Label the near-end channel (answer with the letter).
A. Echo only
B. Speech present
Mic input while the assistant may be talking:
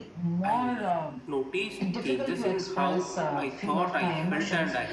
B